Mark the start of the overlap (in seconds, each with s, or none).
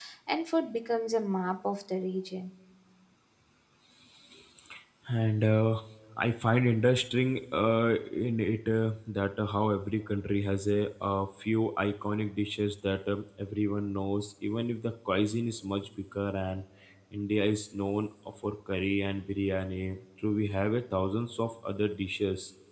none